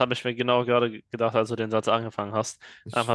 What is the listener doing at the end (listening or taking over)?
listening